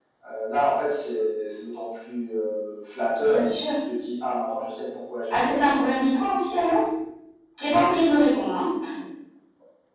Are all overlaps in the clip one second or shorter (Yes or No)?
Yes